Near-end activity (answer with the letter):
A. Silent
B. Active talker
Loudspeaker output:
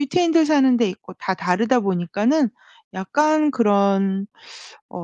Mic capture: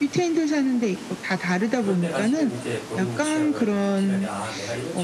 B